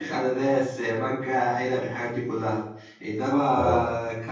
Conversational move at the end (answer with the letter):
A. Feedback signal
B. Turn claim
A